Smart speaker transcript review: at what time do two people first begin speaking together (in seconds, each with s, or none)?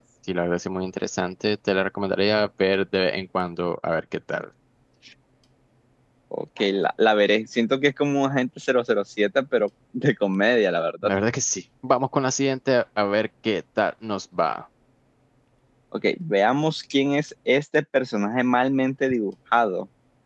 none